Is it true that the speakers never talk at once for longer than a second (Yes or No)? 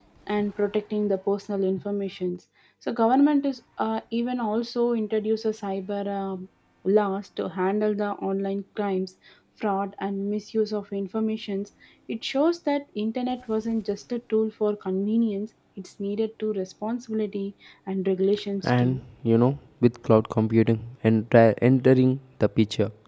Yes